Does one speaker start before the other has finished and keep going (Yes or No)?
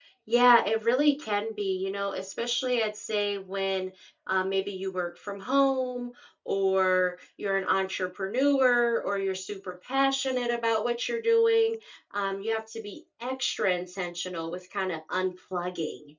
No